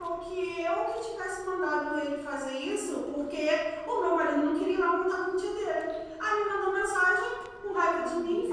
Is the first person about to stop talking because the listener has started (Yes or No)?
No